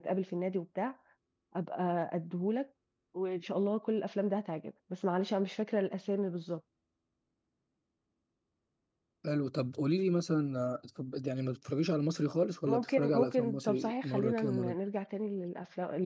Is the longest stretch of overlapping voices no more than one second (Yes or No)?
No